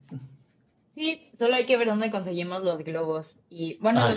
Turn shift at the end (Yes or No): No